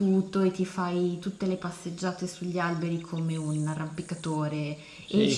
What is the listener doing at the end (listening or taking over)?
taking over